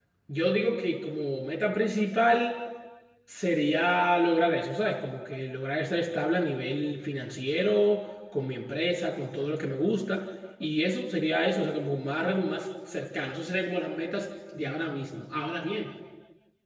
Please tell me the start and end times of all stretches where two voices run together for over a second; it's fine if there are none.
none

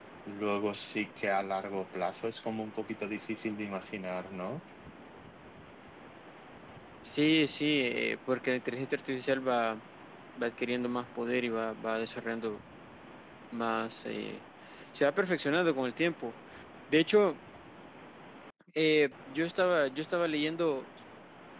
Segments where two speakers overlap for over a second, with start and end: none

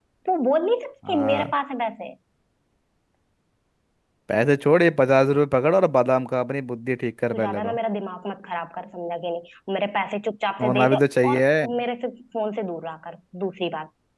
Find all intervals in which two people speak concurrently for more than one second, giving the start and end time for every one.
none

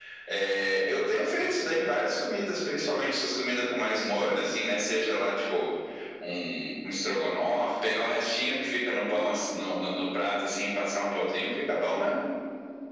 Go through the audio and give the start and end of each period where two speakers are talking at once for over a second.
none

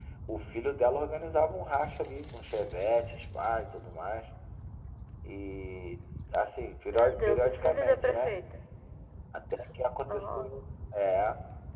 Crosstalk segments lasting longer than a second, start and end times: 6.9-8.3

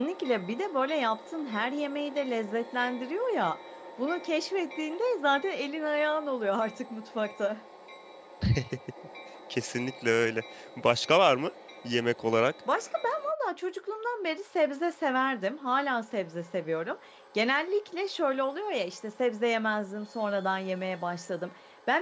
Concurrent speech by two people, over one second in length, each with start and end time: none

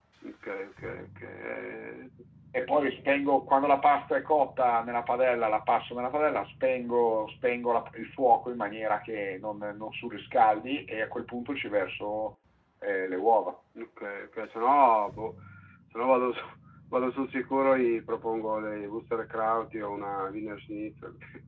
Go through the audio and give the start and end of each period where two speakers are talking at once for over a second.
none

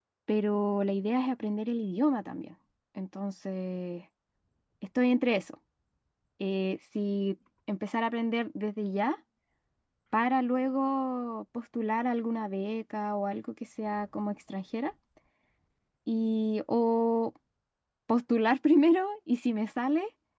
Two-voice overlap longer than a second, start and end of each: none

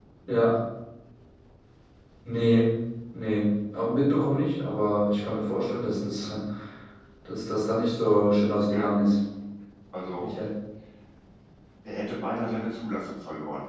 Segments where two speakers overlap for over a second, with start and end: none

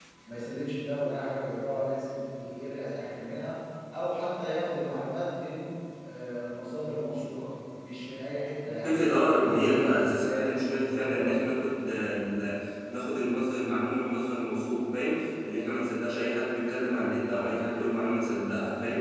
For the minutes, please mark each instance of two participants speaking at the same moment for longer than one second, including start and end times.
8.8-11.6

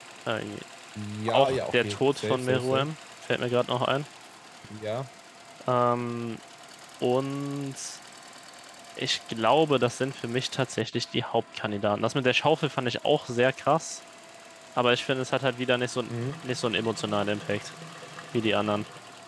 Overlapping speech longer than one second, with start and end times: 1.3-2.9

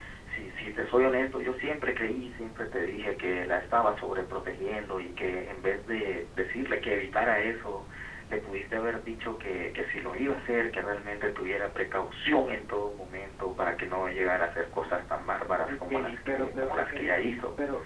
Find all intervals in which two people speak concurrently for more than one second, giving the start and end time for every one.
15.7-17.2

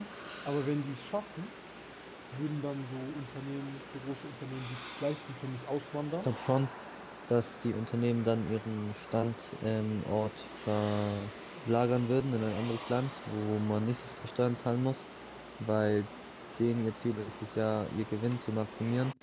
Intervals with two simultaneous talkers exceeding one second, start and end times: none

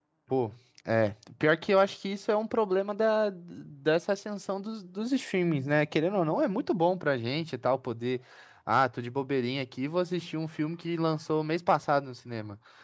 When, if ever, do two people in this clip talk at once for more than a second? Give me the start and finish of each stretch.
none

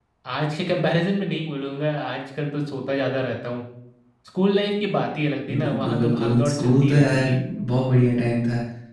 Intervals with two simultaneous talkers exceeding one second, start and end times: 5.5-7.3

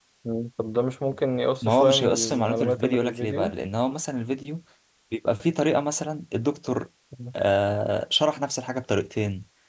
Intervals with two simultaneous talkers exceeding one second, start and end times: 1.6-3.5

